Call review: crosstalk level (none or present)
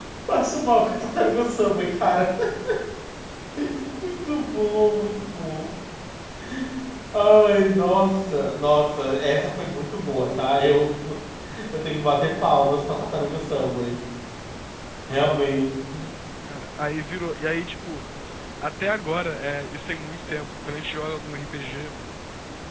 none